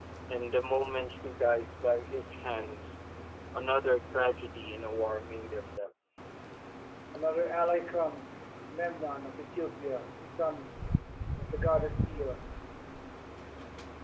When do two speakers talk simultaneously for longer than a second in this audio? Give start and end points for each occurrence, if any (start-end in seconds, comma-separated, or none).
none